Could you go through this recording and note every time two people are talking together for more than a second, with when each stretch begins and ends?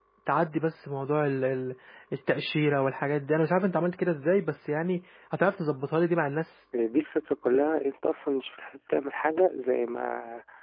none

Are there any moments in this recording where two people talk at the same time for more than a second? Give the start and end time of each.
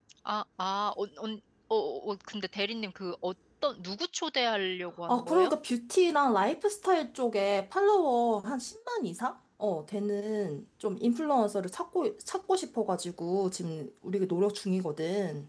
none

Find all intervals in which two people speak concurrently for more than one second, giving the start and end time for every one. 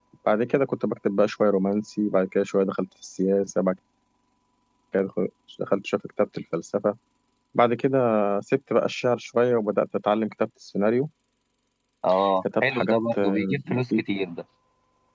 12.6-14.0

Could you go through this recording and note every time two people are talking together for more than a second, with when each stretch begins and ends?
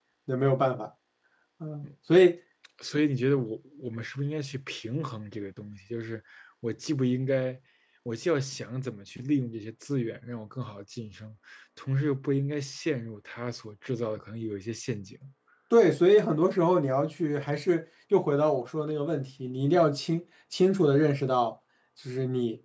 none

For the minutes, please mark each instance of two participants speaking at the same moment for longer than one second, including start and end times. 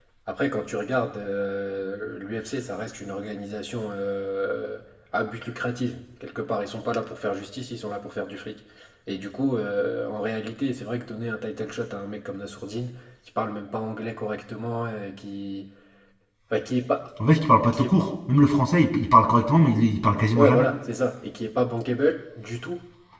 none

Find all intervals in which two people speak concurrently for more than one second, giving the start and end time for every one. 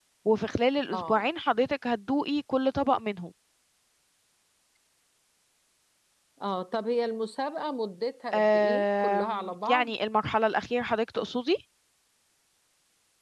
8.3-9.9

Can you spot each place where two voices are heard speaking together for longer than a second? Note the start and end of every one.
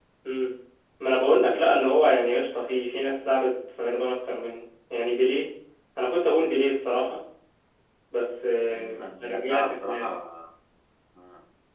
8.7-10.1

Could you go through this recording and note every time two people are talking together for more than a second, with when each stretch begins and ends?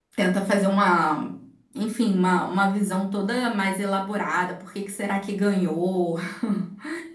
none

